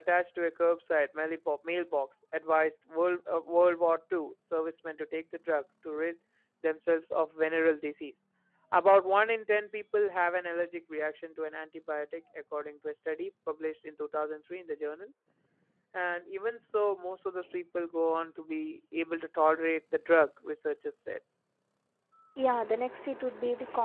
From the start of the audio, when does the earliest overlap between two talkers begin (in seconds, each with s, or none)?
none